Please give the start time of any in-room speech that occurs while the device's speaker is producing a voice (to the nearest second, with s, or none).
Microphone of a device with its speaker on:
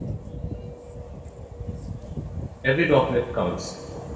3 s